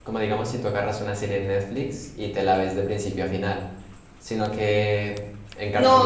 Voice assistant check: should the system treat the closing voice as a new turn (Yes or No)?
Yes